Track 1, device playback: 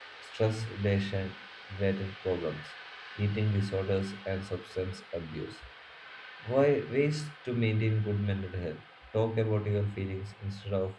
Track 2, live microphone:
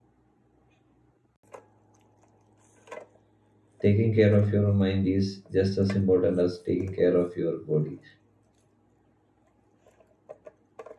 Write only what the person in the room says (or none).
Taking care of your mind is just as important as taking care of your body.